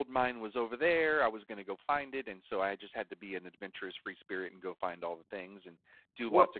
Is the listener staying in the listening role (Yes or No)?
Yes